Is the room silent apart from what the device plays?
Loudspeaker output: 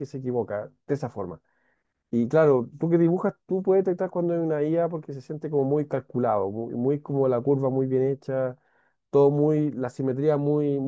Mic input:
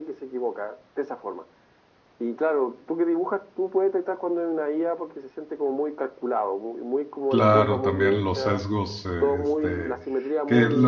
No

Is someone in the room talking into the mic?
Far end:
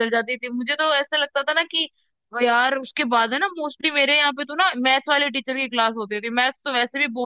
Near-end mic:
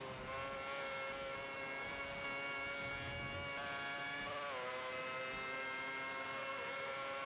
No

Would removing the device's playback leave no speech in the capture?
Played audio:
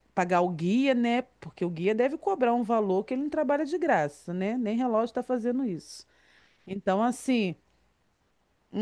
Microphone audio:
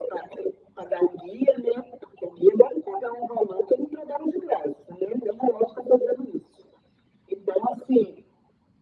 Yes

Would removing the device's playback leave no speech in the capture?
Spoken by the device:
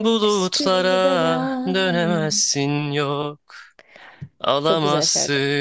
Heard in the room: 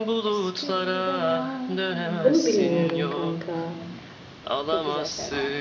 No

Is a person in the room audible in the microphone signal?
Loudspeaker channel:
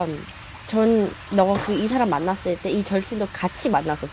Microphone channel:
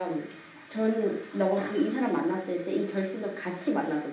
No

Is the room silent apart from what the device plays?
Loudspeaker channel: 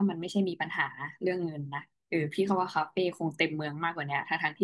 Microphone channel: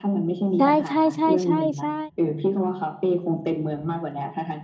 No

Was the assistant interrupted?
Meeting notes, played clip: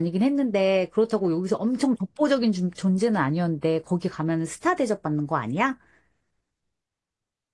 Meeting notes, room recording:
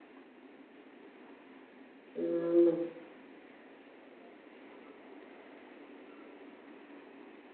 Yes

